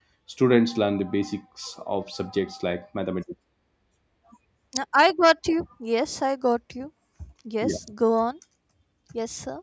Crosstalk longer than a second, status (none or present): none